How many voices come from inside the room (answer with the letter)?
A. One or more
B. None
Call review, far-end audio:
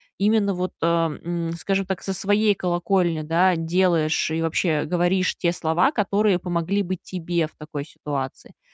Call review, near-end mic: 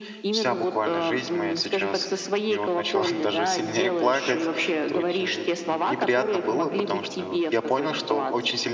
A